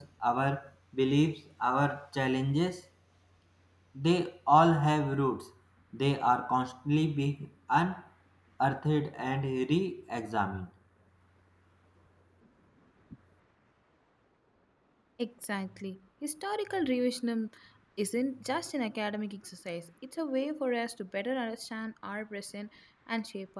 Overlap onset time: none

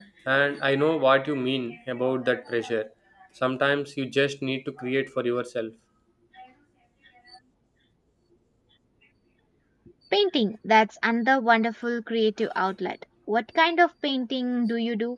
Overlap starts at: none

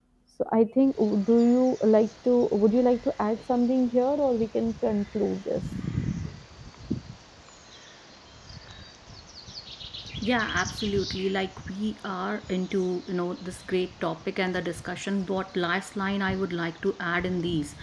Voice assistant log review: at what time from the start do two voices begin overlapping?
none

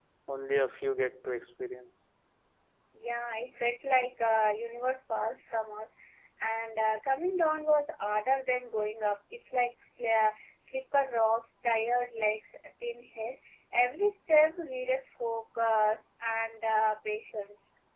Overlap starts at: none

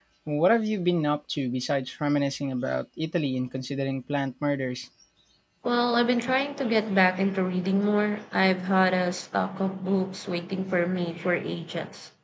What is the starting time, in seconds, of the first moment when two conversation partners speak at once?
none

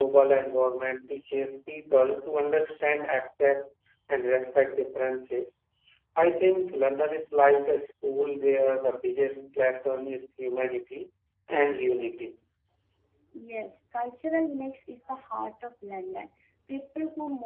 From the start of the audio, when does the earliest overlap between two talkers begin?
none

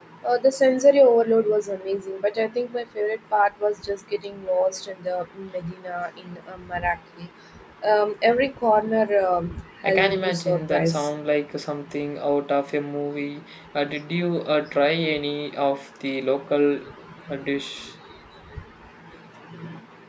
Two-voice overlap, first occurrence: 9.8 s

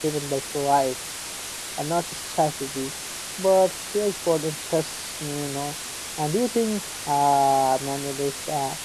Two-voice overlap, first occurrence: none

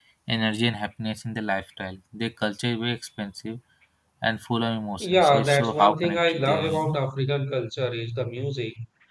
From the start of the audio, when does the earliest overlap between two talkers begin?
5.0 s

